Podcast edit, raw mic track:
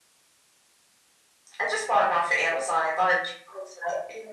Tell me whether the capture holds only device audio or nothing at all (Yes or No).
Yes